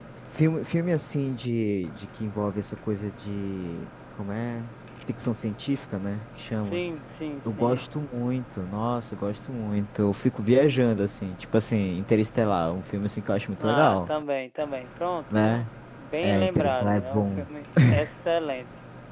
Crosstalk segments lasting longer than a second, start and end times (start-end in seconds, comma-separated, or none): 16.2-17.5